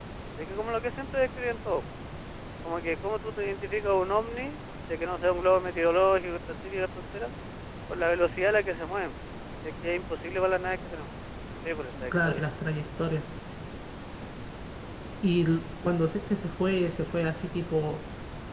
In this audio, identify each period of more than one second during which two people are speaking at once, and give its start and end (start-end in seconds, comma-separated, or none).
none